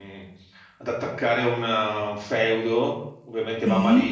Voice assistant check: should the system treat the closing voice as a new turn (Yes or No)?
No